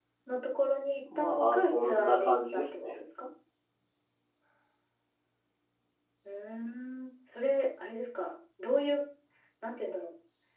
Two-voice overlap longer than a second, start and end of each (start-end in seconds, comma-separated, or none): 1.2-2.9